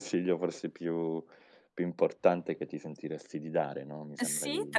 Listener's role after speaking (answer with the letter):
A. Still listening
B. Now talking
B